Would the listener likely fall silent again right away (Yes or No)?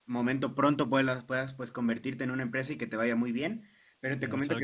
Yes